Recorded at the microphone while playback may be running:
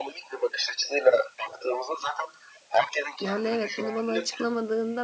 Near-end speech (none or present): present